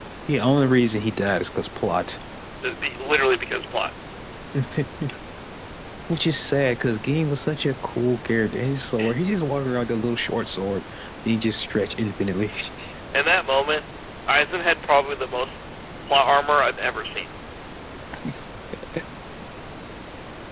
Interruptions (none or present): none